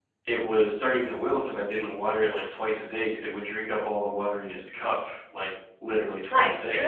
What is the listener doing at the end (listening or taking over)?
taking over